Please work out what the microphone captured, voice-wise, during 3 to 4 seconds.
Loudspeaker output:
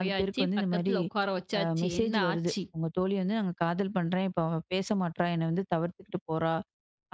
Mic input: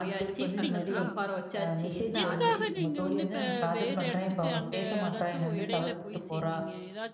both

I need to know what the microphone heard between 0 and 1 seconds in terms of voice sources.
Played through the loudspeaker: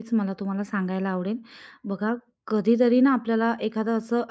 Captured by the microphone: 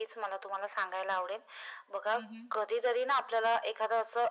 echo only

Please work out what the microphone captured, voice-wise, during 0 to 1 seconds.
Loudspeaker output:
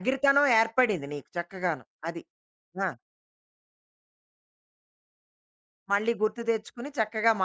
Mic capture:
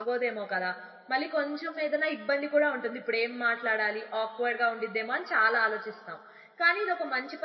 user only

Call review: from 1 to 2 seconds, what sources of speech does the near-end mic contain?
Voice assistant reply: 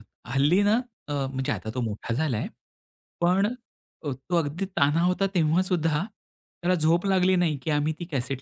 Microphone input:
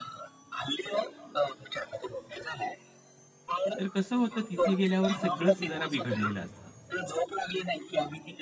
echo only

